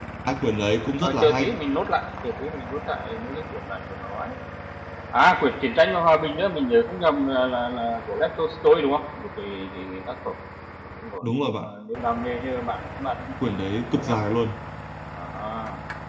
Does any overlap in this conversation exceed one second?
No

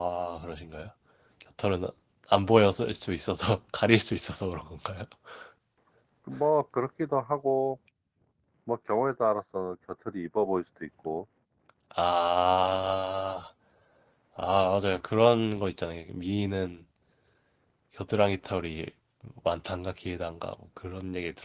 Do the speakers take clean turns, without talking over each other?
Yes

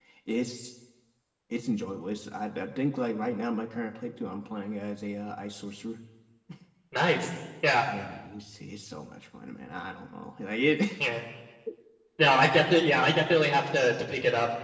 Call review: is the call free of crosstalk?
Yes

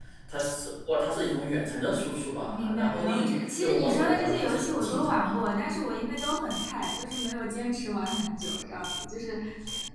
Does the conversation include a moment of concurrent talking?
Yes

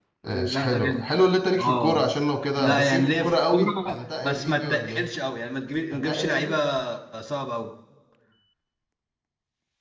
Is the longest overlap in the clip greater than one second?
Yes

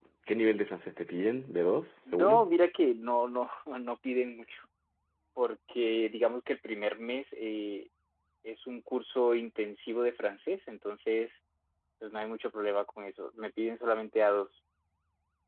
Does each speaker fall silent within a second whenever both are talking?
Yes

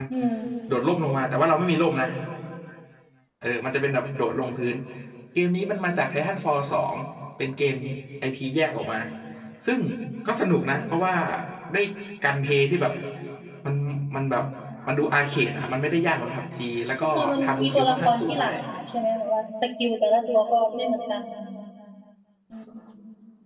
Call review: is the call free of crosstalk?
No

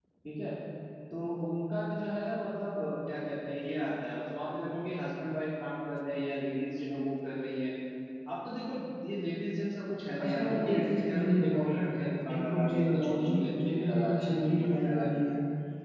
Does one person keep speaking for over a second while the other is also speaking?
Yes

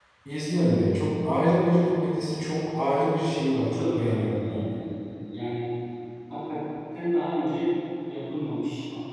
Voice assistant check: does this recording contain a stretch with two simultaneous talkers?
Yes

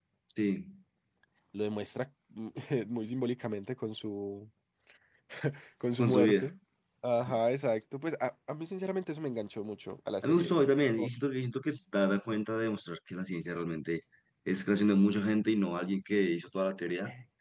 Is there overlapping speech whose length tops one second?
No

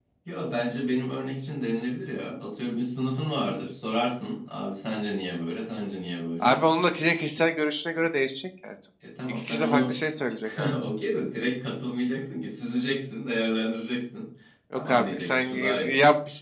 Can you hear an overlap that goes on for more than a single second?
Yes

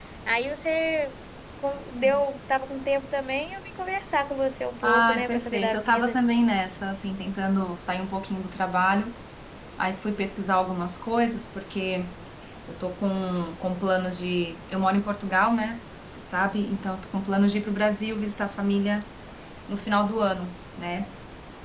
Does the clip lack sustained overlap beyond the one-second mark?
No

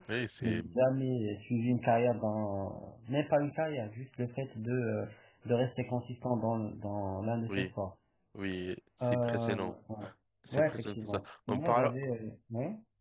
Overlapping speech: Yes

